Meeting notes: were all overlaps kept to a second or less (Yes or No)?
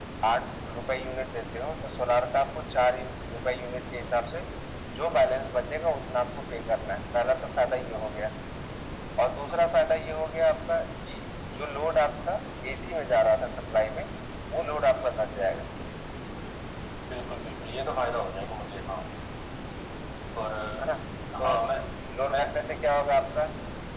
Yes